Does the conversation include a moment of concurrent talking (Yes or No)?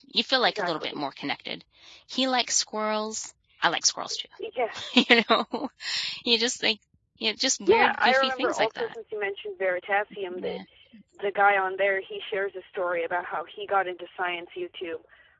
Yes